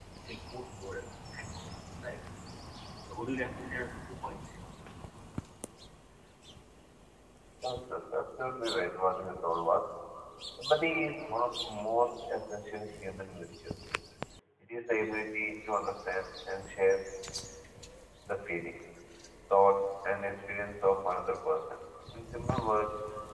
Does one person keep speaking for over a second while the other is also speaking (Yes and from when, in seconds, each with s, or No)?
No